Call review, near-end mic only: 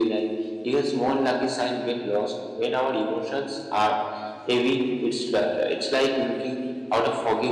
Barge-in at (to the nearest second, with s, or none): none